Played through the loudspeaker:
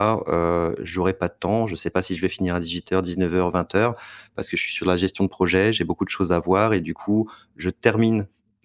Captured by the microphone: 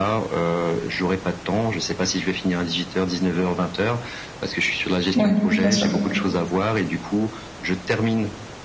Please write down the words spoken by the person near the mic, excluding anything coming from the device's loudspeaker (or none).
Ouais, bien sûr.